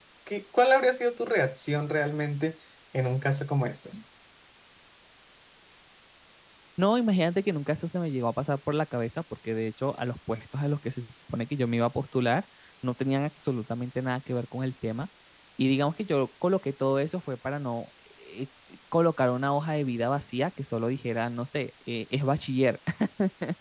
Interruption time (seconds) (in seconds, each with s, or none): none